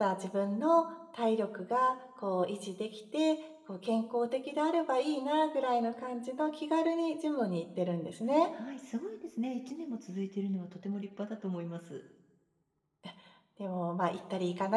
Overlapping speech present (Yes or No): No